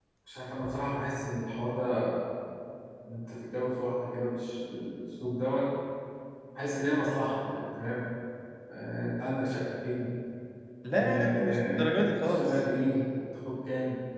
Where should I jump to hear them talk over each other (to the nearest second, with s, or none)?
11 s